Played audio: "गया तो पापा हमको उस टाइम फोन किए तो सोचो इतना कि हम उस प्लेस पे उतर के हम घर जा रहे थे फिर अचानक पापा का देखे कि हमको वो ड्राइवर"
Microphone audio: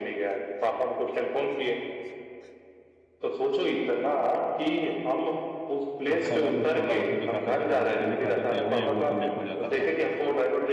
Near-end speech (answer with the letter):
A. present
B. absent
A